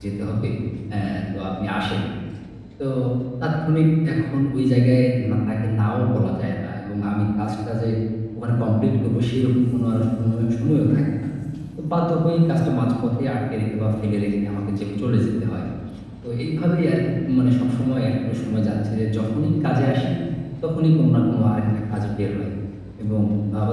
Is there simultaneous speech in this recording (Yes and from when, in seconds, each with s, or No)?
No